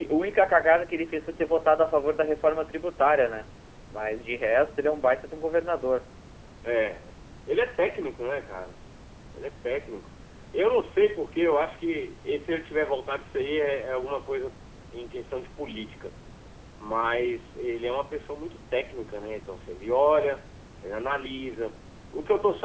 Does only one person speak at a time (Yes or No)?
Yes